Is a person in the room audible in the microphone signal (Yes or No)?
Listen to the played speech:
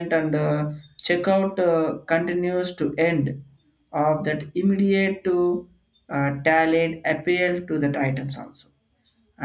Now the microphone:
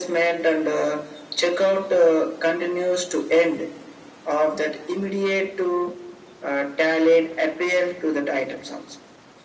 No